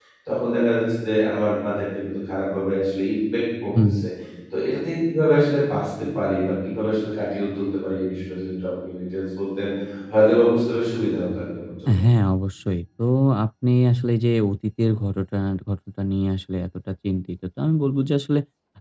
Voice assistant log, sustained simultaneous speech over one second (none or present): none